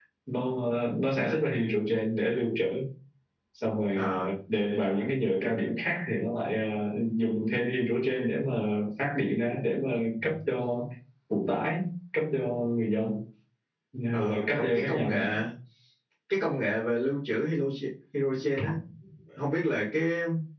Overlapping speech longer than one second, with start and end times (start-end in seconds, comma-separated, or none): 14.1-15.3